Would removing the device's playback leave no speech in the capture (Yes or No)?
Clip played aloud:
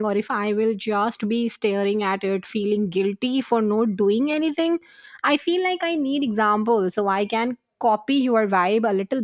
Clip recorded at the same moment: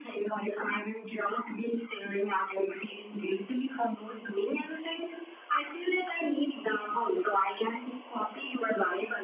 Yes